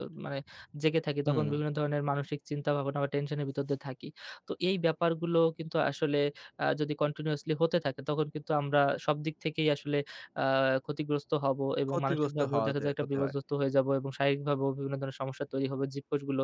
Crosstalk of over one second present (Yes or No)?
Yes